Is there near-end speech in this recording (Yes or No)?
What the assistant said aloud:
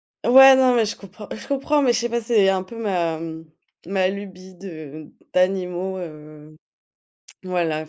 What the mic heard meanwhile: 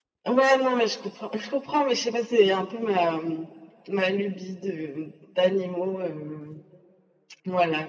No